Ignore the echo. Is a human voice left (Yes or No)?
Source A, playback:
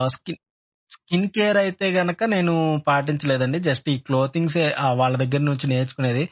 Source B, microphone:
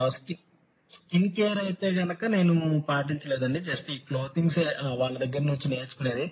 No